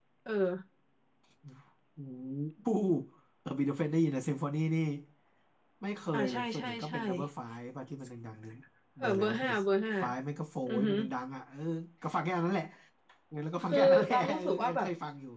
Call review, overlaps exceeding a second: present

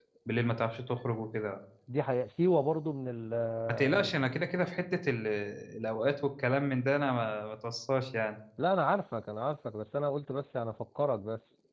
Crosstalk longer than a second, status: none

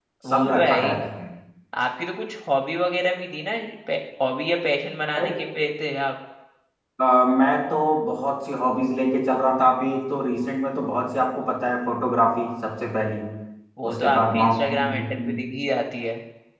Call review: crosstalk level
present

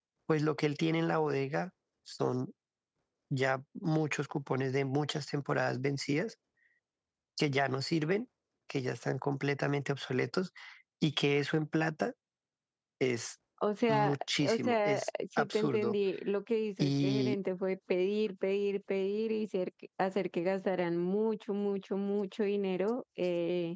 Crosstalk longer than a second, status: present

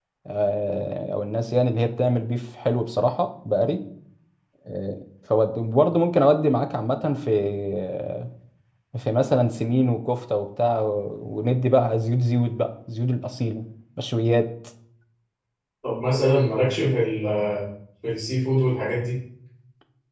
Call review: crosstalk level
none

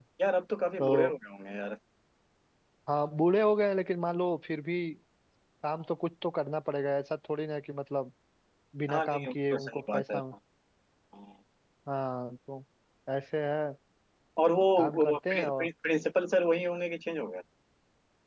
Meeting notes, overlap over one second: present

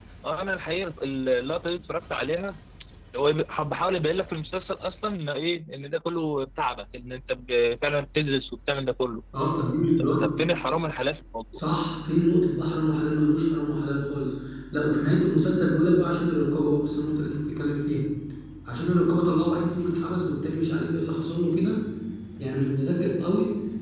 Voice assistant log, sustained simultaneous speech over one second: none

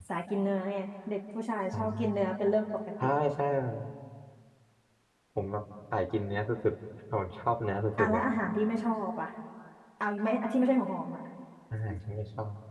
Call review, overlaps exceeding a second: none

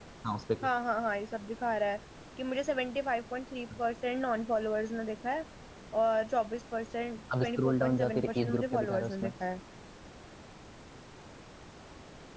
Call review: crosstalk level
present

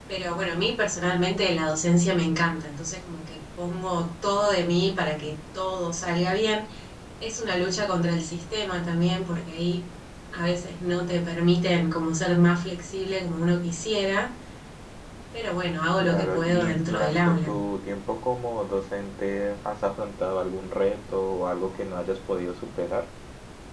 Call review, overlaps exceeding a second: present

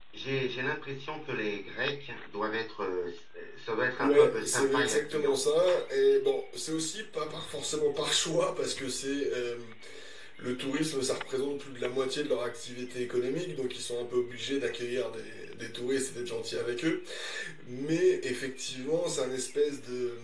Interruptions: present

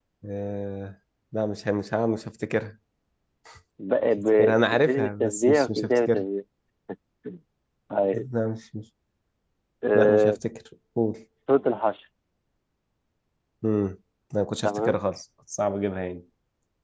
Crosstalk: present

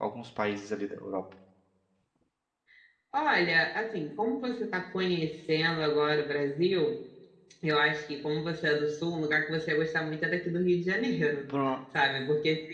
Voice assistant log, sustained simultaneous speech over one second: none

